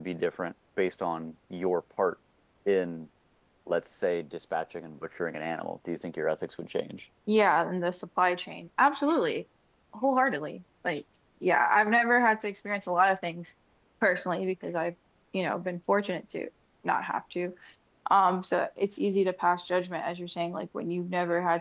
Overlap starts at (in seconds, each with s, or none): none